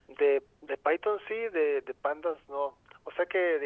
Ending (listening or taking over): listening